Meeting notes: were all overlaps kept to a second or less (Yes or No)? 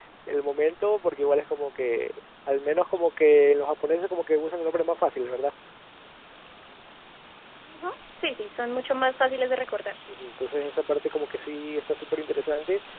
Yes